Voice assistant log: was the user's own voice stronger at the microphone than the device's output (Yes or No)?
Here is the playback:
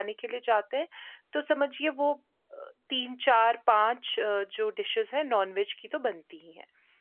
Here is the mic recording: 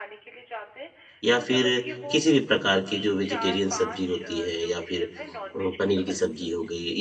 Yes